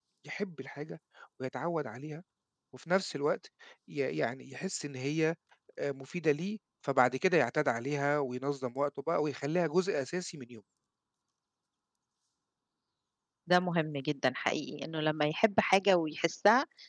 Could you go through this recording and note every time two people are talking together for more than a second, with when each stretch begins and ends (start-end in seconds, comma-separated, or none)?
none